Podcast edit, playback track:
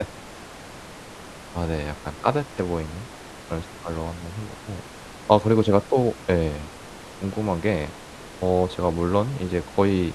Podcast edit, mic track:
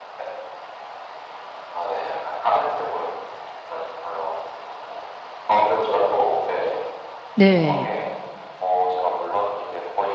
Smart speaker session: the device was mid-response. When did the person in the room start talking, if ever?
7.4 s

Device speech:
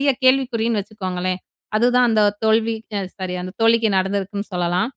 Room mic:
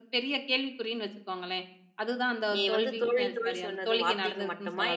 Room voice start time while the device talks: 2.5 s

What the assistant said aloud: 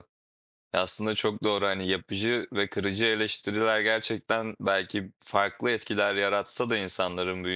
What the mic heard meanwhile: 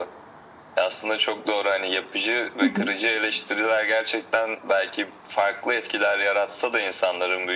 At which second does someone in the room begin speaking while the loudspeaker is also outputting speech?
2.6 s

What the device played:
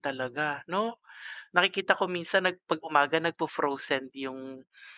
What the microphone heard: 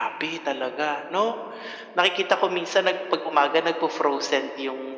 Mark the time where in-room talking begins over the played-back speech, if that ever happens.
none

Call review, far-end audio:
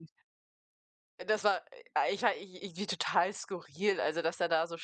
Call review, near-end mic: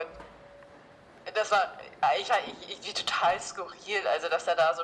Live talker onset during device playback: none

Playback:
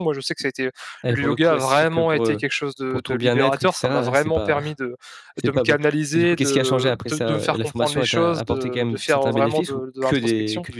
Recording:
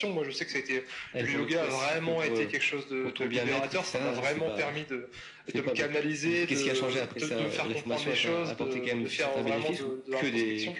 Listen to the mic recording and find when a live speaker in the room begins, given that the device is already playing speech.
none

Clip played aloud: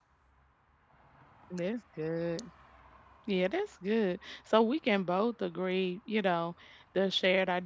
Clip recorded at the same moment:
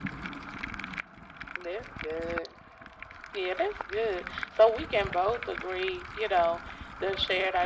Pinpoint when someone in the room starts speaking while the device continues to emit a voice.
none

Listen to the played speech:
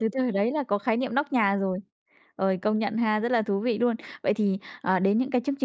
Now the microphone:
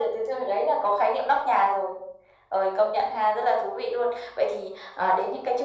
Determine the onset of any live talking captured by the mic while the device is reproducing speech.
none

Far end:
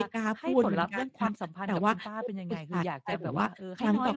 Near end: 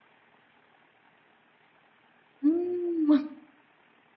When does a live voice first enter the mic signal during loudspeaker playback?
2.4 s

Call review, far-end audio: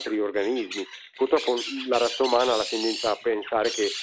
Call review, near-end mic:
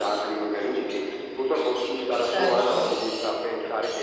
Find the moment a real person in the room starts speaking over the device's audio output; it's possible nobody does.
2.2 s

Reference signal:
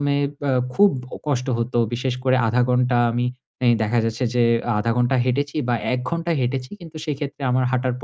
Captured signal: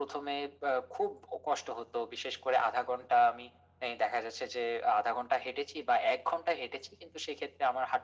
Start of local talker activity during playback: none

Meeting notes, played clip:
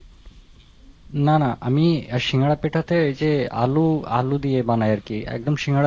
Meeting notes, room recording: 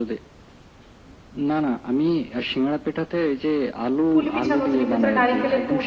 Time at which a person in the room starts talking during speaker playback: 4.1 s

